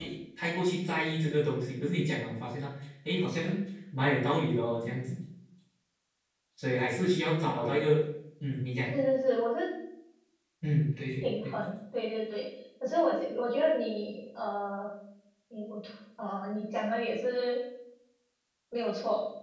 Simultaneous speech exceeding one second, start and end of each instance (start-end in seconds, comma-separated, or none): none